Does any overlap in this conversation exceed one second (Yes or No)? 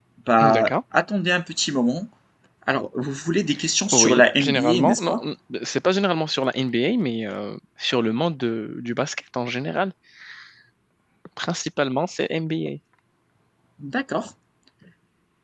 Yes